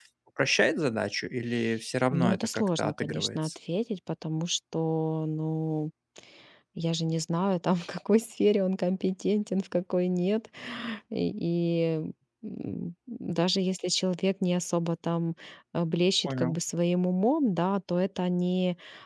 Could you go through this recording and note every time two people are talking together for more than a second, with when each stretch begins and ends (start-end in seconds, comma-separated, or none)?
2.1-3.5